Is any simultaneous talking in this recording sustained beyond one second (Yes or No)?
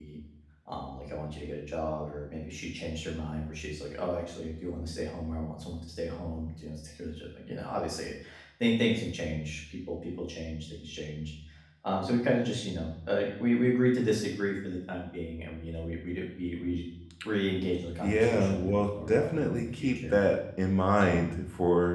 Yes